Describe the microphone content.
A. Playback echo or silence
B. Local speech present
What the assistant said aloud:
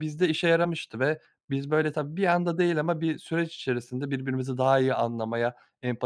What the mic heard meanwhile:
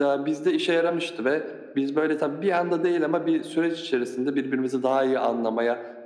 A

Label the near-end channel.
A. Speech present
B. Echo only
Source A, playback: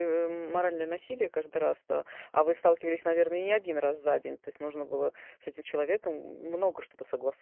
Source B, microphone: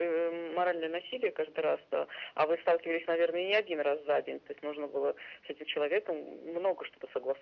B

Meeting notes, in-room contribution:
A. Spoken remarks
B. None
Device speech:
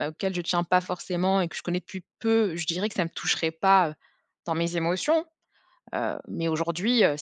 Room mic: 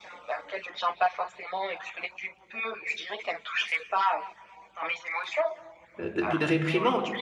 A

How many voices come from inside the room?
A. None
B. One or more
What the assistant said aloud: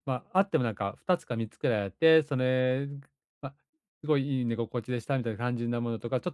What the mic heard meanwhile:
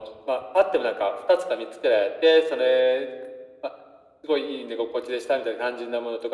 A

